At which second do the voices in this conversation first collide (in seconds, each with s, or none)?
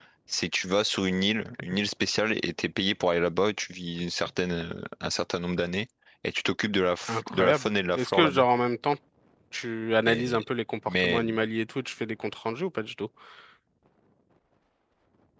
7.1 s